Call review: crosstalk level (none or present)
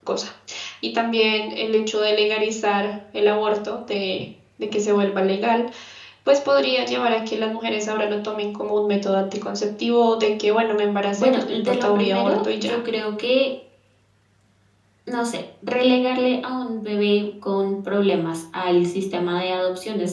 present